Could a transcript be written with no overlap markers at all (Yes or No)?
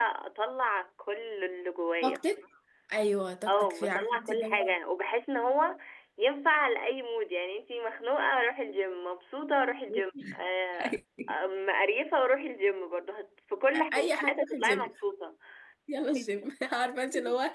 No